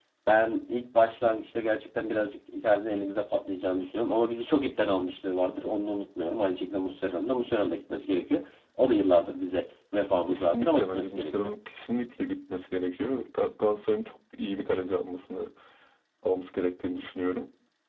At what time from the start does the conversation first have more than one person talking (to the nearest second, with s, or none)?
10 s